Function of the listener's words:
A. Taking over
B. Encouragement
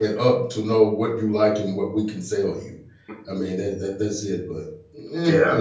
A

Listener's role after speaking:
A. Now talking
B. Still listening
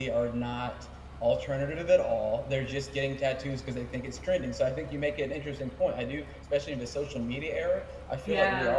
B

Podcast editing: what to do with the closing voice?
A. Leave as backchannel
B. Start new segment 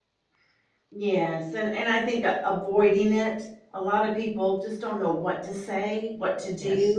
A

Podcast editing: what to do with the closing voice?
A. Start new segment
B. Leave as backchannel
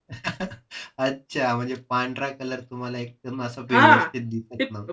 A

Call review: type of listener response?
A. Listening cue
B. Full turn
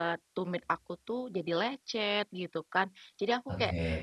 A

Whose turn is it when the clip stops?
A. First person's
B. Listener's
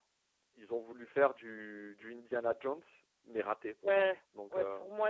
B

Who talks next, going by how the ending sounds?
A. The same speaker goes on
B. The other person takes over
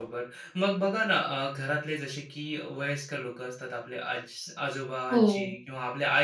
A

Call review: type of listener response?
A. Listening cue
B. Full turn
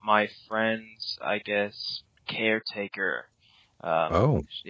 A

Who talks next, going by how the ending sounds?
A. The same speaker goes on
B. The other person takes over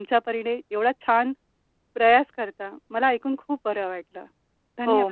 B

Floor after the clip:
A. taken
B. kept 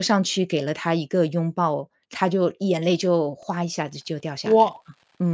A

